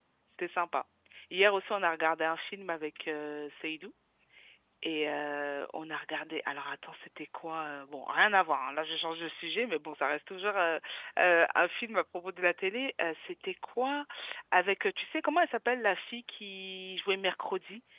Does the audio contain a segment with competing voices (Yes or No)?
No